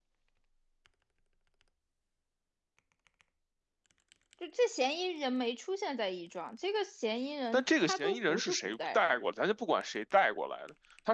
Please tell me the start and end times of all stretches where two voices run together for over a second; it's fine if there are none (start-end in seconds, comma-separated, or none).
7.5-9.1